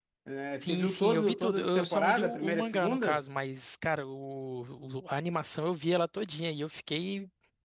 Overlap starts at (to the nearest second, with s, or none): 1 s